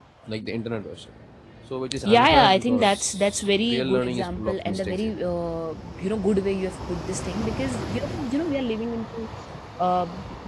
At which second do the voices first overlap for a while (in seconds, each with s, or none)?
2.0 s